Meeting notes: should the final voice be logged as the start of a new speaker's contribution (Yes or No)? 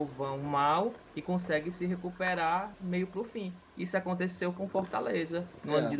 No